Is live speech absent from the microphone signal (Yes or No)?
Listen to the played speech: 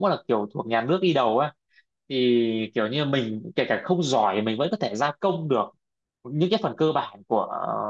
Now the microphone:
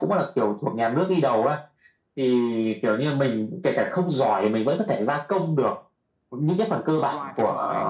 No